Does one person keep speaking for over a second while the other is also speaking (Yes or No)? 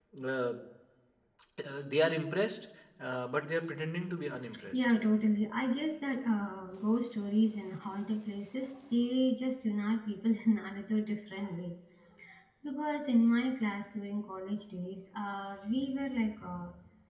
No